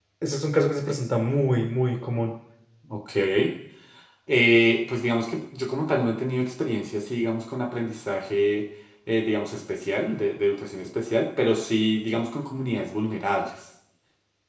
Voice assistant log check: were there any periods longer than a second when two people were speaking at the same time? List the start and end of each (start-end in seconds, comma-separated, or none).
none